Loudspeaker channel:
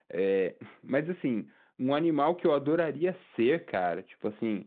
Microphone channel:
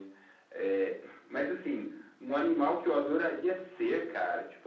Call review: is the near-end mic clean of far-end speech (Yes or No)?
No